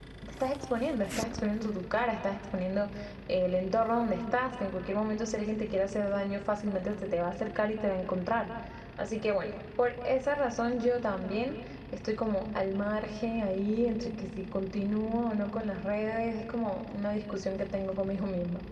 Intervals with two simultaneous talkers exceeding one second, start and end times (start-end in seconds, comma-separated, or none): none